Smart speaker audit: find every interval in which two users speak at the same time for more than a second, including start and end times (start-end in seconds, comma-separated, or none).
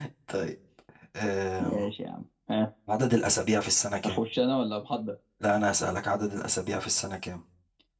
none